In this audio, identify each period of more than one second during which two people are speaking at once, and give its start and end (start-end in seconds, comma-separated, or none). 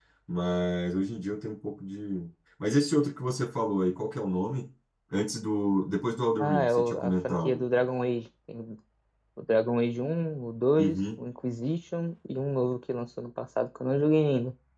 6.4-7.7